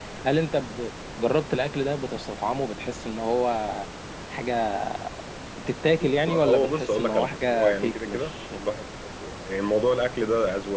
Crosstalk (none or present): present